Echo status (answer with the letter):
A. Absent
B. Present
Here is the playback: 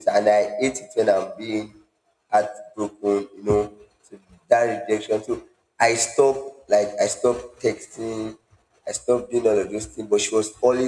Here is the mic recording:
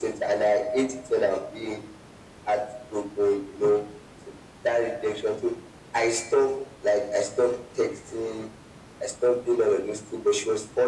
B